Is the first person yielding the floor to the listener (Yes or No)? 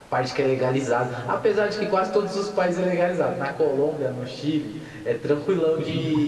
No